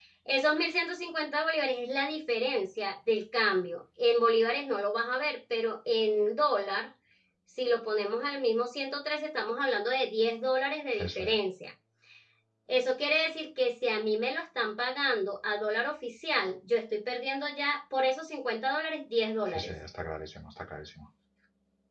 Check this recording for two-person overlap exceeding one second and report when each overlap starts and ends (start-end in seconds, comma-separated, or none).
none